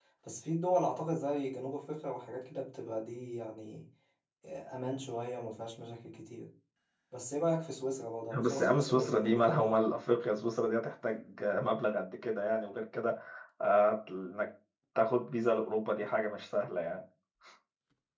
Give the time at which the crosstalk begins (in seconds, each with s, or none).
8.3 s